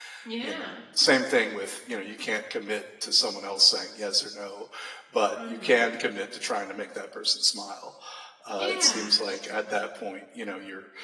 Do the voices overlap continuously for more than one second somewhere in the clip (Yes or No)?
Yes